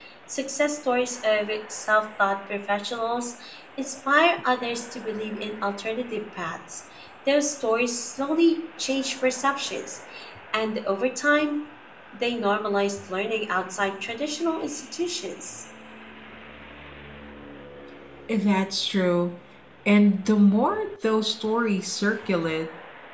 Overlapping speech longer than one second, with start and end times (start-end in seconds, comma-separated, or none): none